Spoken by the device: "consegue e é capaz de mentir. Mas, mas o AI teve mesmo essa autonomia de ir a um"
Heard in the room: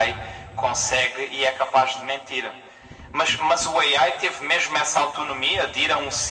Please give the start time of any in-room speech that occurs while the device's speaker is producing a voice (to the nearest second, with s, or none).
none